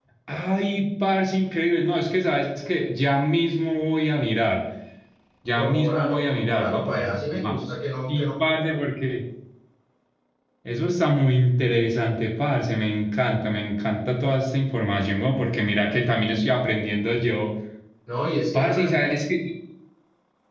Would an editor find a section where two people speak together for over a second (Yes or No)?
Yes